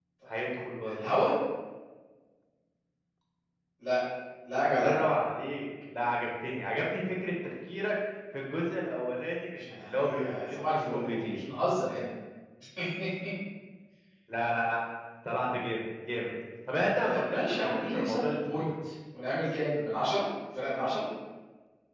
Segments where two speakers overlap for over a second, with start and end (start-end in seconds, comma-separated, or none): 9.6-11.4, 17.0-18.7